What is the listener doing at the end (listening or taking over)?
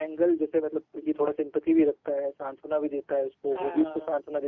listening